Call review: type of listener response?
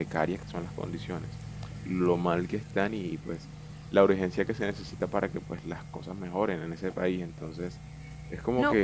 taking over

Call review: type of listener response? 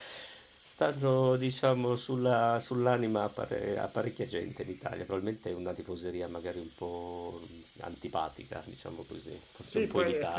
taking over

